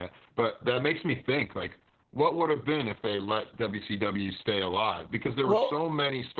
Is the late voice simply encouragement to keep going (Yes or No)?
Yes